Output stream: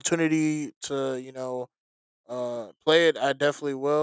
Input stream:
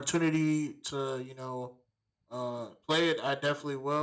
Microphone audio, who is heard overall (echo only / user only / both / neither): echo only